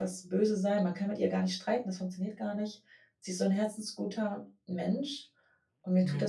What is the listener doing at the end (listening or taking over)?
listening